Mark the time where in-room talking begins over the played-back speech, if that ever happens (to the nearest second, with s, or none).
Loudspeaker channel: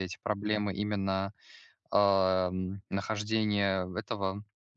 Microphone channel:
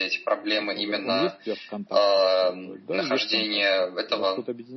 0 s